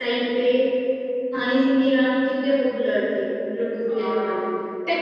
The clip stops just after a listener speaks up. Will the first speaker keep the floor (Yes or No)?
No